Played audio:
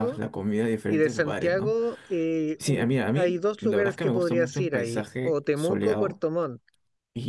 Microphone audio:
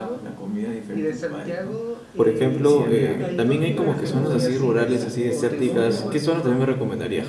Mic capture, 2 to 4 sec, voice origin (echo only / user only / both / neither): both